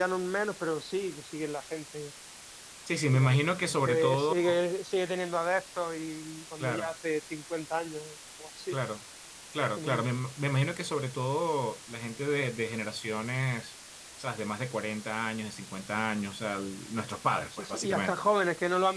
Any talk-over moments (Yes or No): Yes